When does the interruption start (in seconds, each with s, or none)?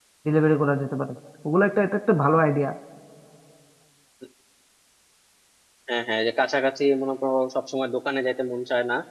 none